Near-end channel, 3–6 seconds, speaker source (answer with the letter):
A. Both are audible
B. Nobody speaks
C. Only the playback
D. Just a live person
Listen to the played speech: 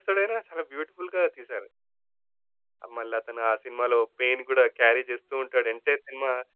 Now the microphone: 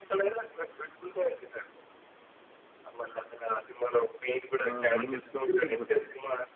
A